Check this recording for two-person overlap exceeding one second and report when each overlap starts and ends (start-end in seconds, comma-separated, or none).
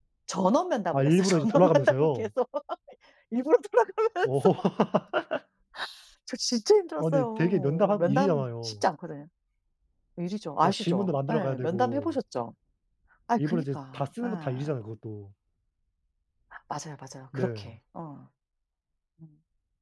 0.9-2.3, 7.0-8.8, 10.6-12.2, 13.4-14.7